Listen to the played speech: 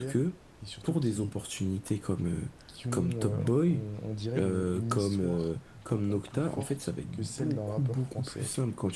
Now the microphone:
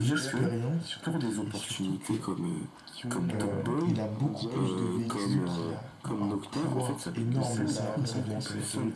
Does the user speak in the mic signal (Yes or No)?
Yes